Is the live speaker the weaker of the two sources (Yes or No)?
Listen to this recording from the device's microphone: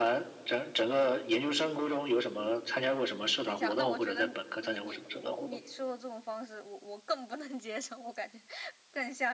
Yes